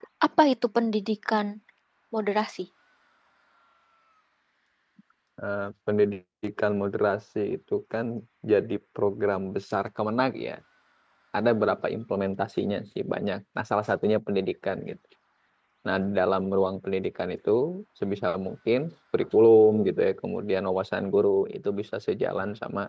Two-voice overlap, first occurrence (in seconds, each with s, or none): none